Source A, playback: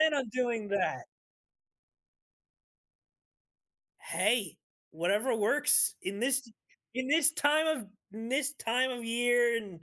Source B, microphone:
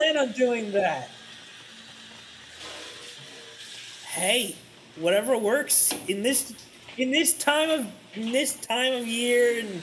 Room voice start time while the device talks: none

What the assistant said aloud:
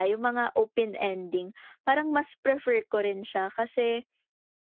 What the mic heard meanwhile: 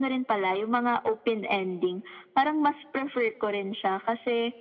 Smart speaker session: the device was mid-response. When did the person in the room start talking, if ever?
none

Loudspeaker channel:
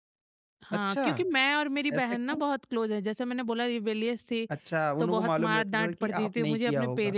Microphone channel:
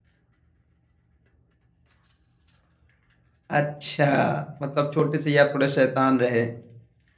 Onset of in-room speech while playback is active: 4 s

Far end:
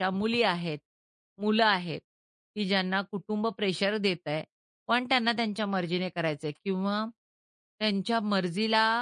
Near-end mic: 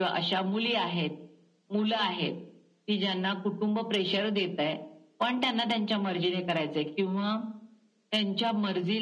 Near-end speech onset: none

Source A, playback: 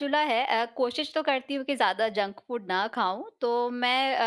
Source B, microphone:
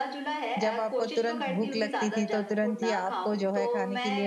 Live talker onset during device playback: 1 s

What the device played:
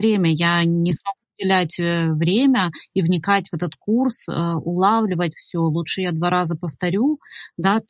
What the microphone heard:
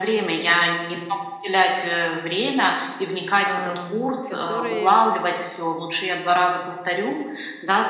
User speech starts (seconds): 3 s

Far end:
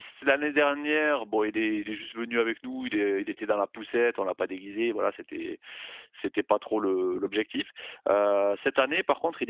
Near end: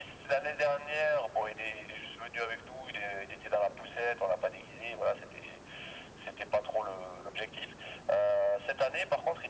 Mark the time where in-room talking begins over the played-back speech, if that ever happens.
none

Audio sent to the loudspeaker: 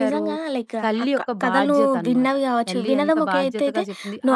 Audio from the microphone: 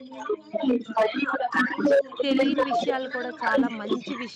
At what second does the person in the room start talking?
2 s

